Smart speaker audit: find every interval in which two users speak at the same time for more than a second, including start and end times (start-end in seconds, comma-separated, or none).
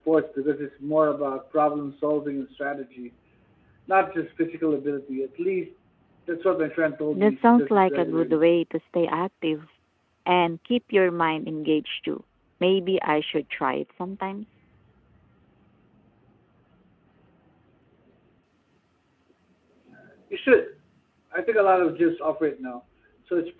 7.1-8.4